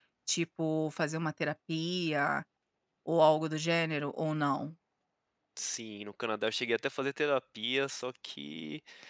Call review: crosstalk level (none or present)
none